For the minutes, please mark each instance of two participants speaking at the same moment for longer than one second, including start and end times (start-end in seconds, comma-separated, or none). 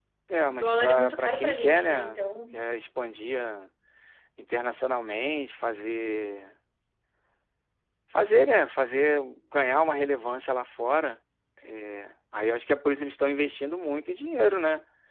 0.5-2.6